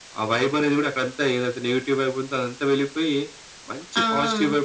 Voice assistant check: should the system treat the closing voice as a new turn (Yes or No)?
No